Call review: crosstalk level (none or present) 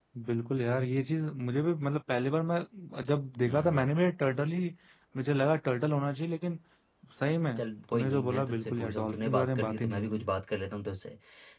present